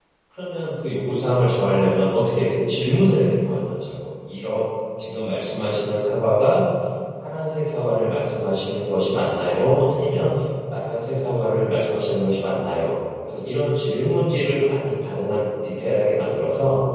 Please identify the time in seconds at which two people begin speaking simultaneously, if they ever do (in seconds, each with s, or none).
none